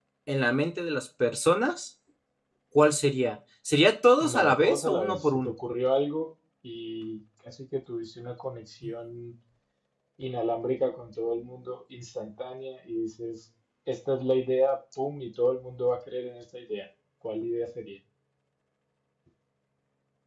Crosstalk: present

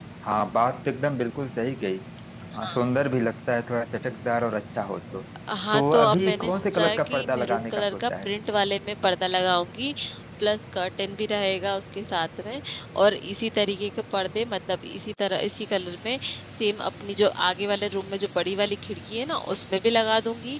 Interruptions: present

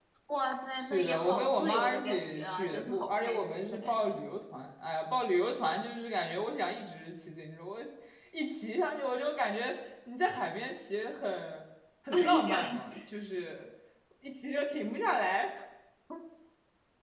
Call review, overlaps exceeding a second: present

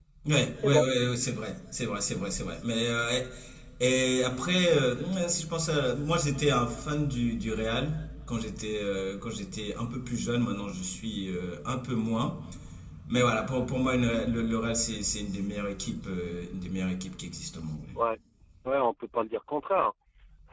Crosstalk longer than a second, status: none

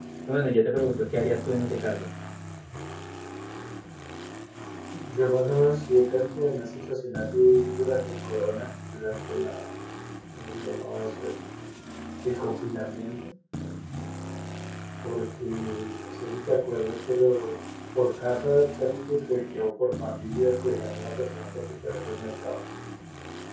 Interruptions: none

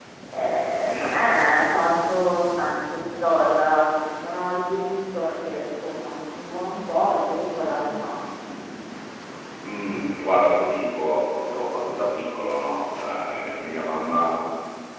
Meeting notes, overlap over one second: none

